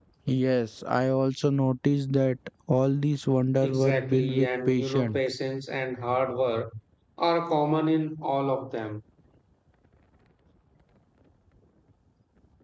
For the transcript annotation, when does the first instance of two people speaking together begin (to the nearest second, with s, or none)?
4 s